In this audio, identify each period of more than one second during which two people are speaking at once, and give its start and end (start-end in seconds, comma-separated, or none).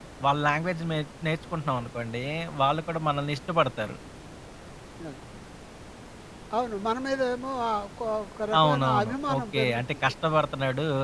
8.6-10.1